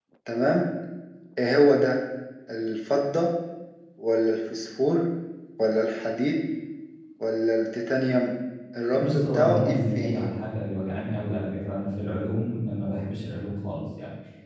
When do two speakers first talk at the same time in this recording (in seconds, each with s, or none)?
8.9 s